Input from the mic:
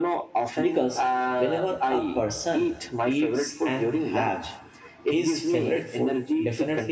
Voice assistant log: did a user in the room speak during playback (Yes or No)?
Yes